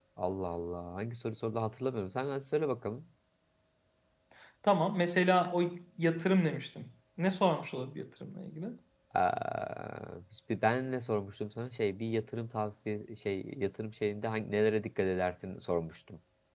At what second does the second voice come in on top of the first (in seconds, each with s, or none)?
none